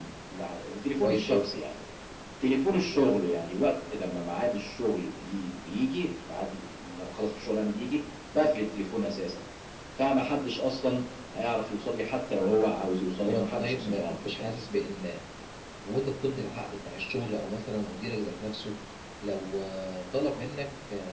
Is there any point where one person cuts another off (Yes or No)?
Yes